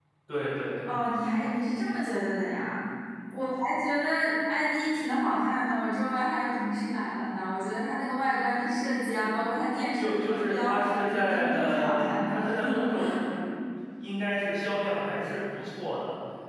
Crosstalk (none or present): present